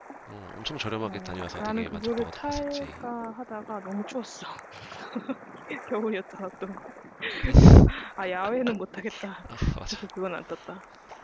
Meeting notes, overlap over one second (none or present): present